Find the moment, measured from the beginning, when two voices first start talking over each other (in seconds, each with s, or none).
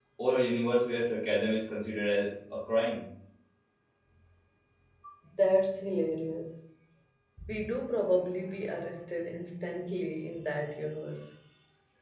none